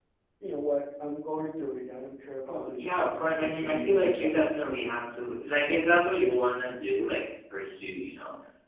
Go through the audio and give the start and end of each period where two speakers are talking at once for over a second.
2.5-4.4

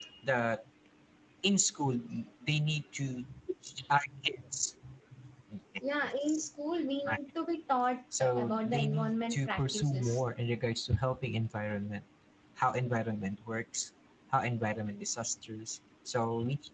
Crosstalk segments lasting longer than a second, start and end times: 8.2-10.2

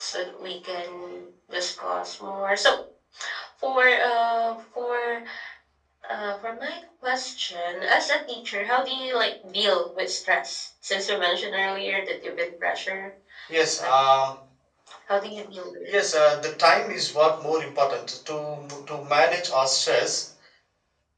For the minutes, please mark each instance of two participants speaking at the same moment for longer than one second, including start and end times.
none

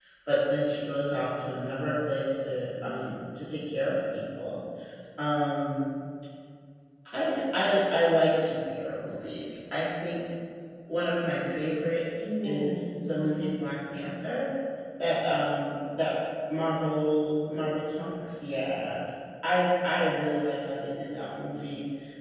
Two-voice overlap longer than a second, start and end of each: 12.2-13.4

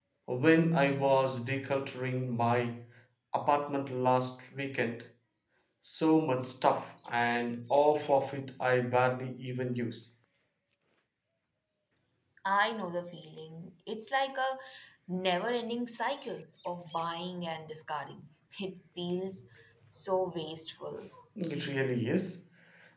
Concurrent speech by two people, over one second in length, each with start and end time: none

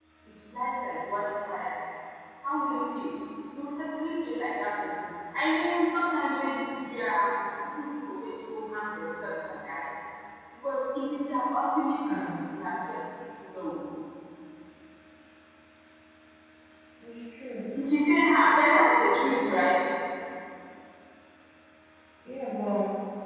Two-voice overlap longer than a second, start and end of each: none

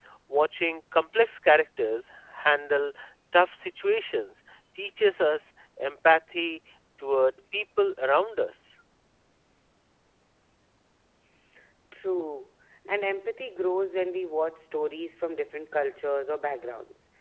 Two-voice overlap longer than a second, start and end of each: none

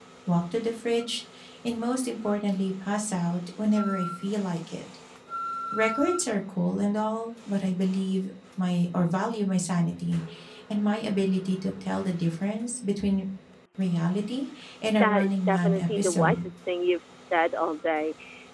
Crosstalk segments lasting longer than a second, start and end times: 14.9-16.5

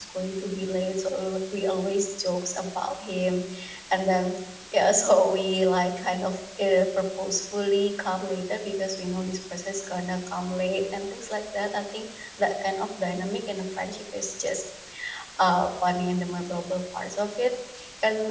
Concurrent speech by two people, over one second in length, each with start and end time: none

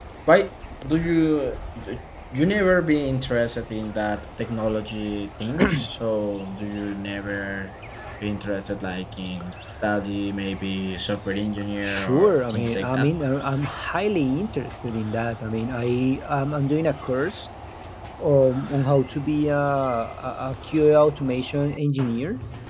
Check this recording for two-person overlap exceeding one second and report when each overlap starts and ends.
11.8-13.1

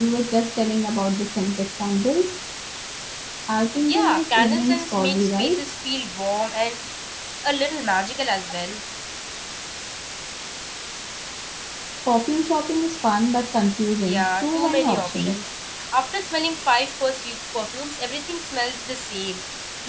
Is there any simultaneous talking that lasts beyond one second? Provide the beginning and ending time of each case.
3.9-5.6, 14.1-15.4

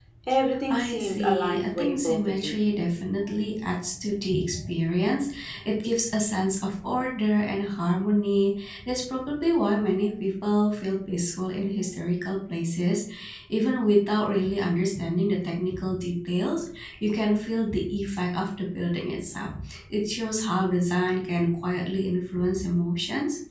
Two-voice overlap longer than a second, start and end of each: 0.7-2.5

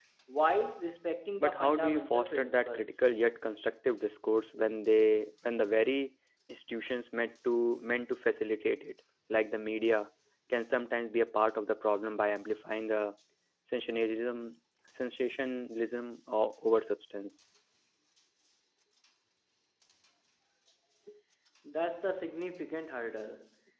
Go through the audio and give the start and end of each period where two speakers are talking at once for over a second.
1.4-3.0

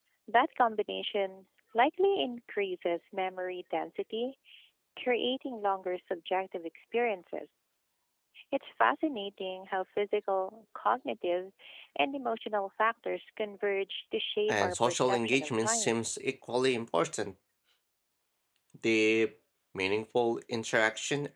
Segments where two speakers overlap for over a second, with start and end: 14.5-16.0

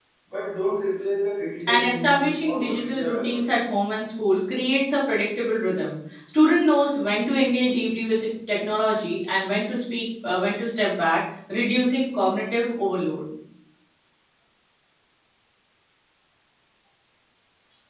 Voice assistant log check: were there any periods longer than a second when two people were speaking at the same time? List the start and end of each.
1.7-3.5

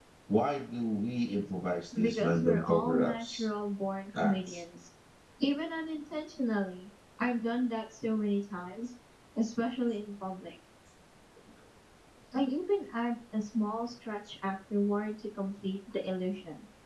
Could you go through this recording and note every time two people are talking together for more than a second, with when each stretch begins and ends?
2.0-3.5

